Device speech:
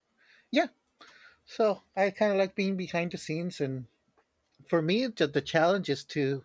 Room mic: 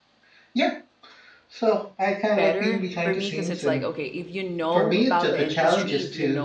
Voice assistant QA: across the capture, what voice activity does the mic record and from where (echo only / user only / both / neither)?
both